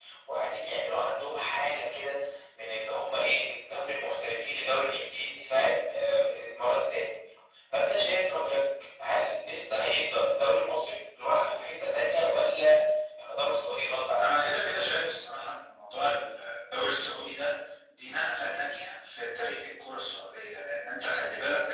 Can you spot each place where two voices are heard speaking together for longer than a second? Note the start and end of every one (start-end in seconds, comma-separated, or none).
none